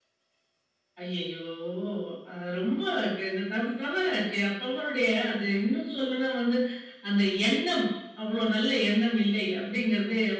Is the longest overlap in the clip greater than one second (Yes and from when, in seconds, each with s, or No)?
No